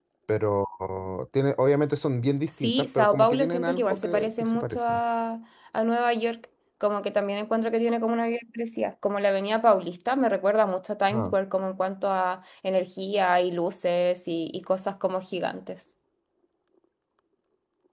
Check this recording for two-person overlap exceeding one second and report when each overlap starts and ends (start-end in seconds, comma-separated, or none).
2.5-5.0